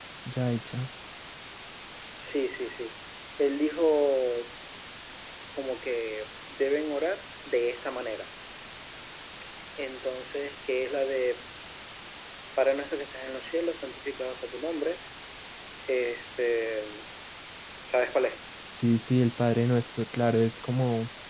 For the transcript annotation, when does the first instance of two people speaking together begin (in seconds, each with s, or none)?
none